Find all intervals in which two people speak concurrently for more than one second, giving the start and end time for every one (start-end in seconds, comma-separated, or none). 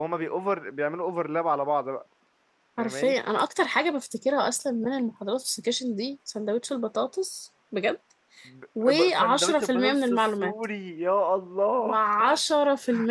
8.8-10.5